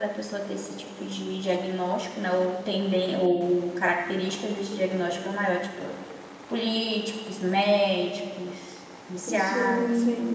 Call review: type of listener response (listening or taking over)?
taking over